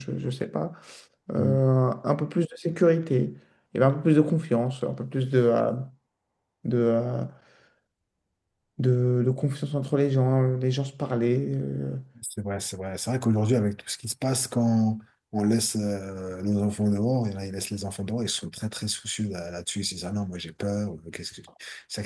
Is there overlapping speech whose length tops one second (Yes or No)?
No